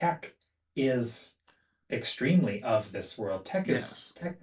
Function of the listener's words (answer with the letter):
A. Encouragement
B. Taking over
A